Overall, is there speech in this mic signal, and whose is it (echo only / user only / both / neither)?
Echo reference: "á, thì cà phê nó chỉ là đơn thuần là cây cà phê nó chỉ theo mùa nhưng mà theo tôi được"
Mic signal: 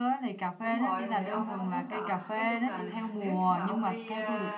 both